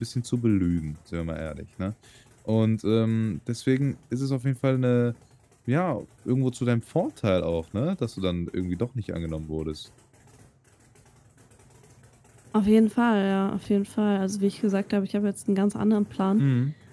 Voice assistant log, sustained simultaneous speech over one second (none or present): none